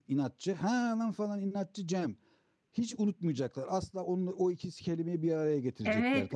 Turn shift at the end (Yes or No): Yes